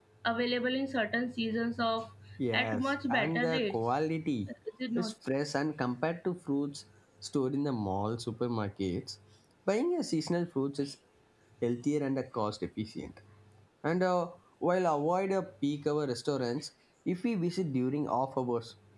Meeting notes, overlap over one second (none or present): present